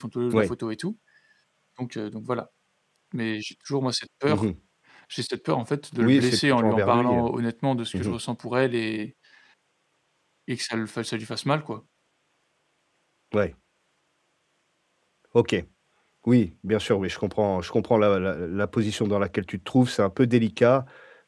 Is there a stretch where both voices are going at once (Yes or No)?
Yes